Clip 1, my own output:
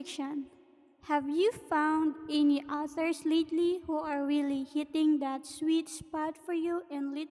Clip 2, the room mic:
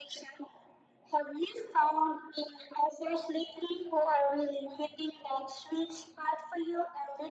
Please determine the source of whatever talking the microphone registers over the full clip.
echo only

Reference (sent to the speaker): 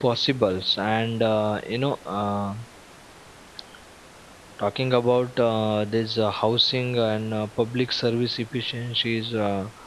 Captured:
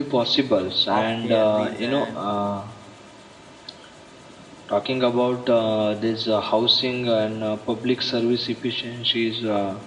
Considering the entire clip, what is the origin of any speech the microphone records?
both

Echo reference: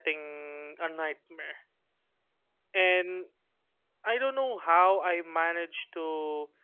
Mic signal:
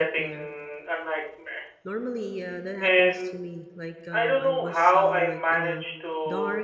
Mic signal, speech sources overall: both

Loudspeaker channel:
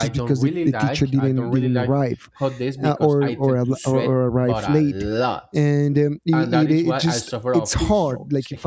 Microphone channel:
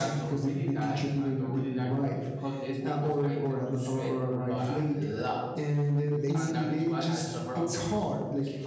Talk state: both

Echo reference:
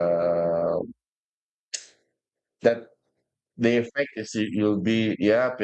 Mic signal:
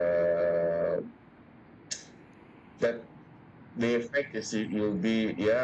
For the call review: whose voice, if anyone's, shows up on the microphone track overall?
echo only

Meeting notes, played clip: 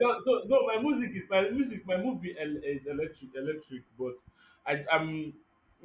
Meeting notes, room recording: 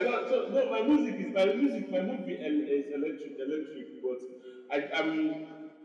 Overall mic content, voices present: echo only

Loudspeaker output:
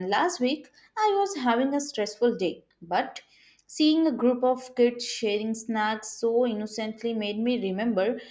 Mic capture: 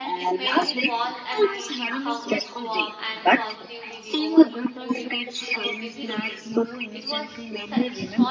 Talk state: both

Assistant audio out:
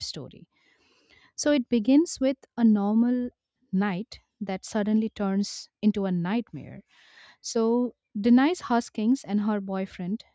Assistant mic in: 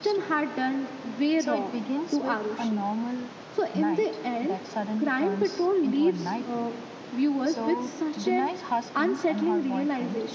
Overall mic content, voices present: both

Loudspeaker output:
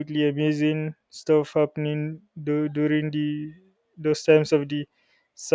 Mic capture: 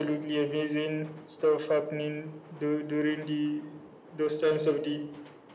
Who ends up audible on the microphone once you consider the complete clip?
echo only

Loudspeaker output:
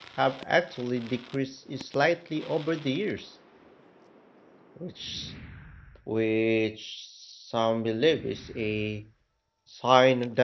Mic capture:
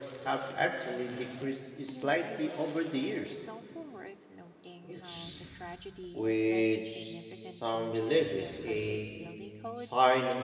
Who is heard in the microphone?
both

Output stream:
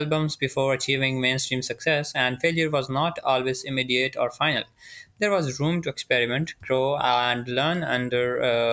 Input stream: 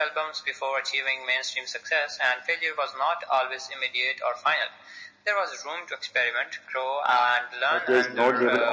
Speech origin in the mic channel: both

